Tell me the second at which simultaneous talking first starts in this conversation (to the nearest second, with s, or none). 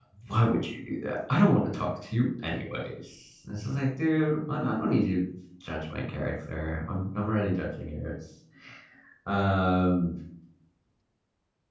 none